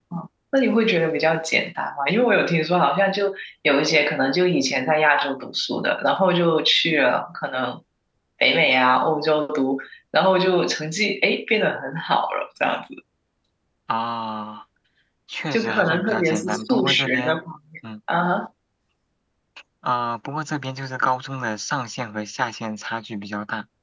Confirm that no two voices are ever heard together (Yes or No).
No